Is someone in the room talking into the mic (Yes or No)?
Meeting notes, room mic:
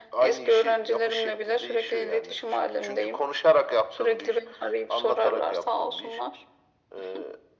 No